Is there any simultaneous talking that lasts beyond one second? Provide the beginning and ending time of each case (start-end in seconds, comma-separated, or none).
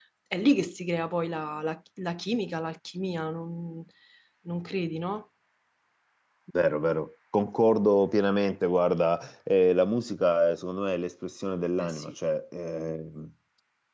none